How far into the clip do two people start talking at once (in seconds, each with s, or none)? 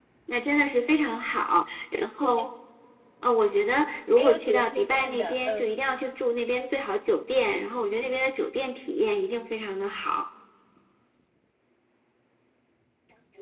4.2 s